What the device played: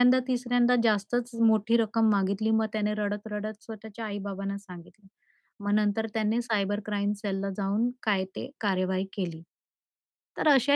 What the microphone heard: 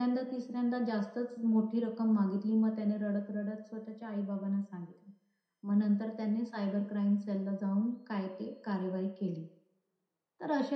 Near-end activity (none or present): none